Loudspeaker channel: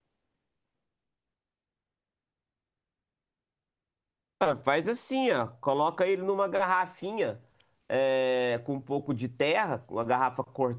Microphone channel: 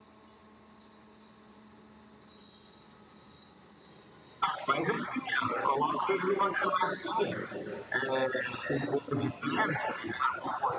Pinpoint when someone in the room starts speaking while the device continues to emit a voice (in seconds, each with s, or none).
none